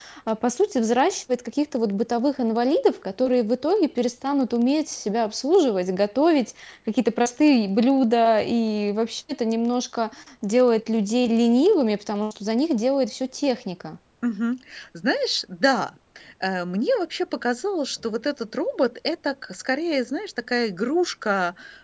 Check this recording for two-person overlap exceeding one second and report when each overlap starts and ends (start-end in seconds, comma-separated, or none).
none